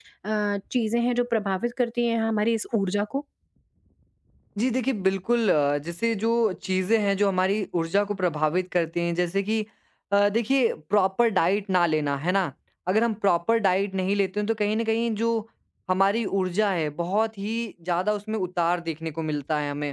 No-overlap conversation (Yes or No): Yes